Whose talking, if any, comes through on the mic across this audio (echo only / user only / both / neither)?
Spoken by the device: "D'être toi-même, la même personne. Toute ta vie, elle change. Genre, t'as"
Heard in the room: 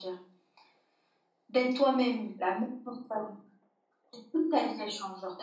echo only